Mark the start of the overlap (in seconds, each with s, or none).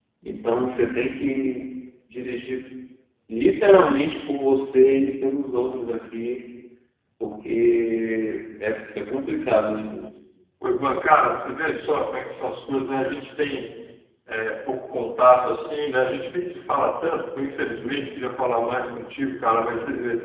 none